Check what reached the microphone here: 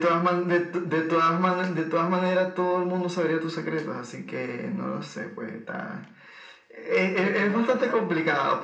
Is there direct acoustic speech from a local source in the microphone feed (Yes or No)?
Yes